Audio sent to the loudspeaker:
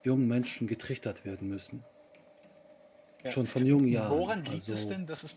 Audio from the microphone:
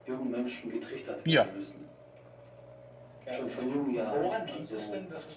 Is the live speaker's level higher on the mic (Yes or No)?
Yes